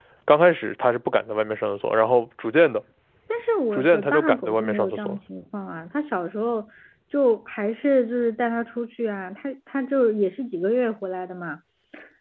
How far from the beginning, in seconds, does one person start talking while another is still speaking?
3.7 s

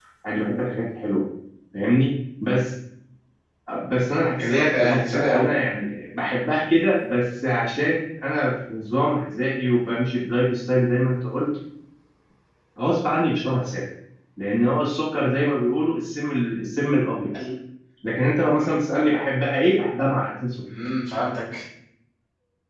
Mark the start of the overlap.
4.4 s

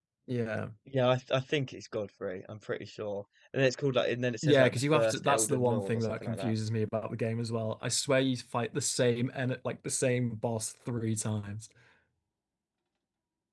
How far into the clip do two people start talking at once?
4.4 s

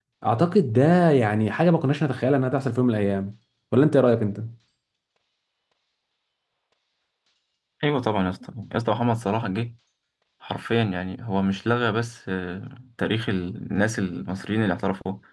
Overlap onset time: none

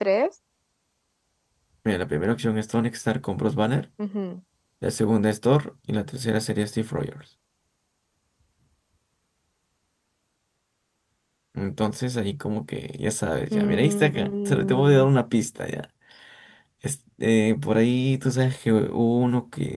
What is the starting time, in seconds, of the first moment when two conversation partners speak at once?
13.5 s

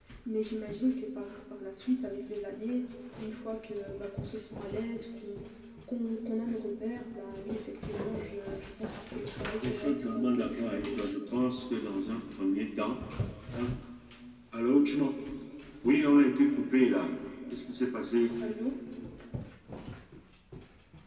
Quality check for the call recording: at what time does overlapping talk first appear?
9.6 s

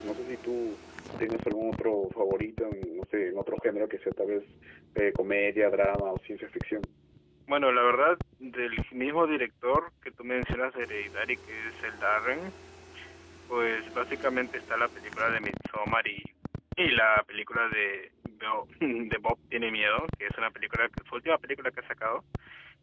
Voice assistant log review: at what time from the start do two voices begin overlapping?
none

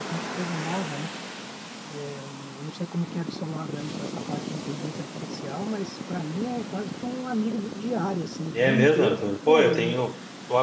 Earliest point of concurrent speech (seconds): 8.5 s

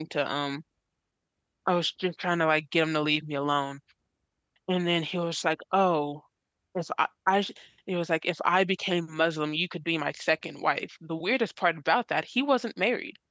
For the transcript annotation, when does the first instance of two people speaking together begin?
none

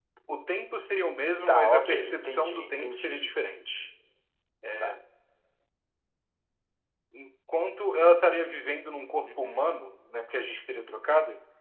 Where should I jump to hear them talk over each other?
1.5 s

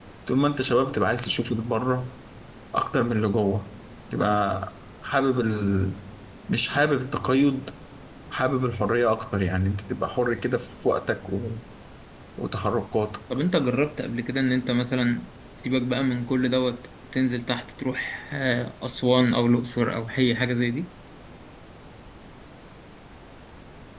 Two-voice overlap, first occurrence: none

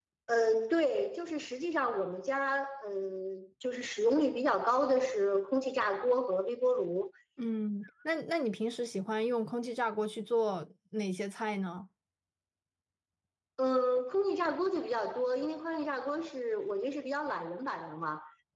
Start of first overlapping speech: none

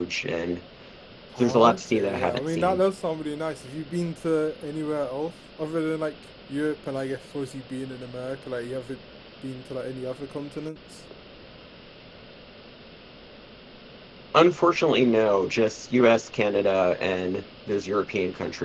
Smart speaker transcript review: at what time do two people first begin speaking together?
1.4 s

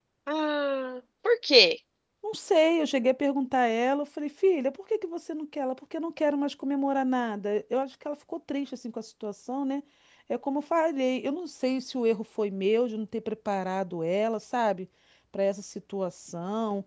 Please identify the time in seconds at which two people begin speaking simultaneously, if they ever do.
none

